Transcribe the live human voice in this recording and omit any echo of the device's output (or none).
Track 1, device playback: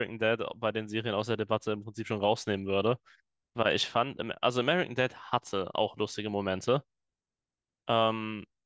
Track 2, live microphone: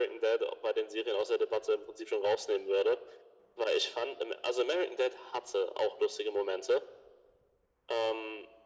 none